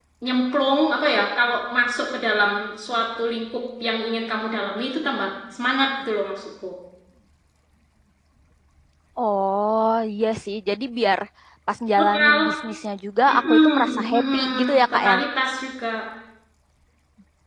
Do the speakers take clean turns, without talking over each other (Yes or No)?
No